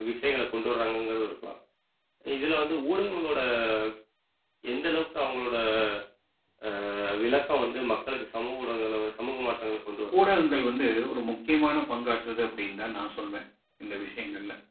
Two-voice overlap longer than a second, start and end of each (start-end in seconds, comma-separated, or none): none